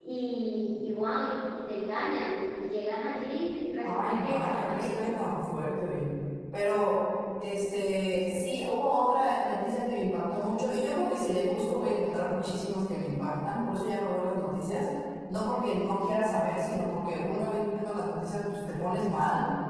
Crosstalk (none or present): present